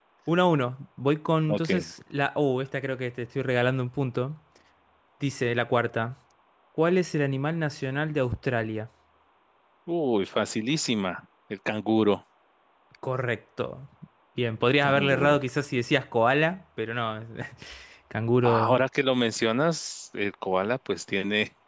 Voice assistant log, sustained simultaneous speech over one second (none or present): none